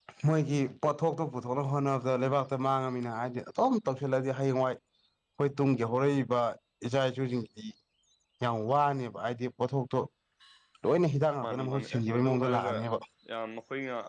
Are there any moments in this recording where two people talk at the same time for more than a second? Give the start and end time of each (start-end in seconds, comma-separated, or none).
11.4-12.7